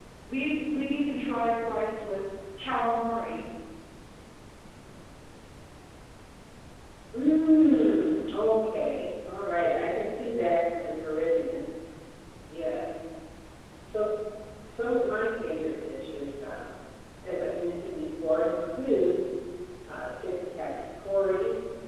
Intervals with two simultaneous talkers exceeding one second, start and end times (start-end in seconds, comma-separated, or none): none